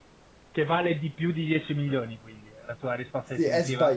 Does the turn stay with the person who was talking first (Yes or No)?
No